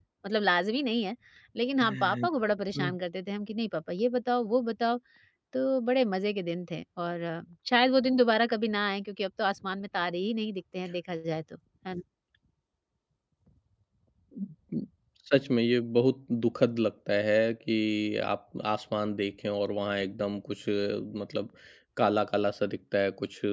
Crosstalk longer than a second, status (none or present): none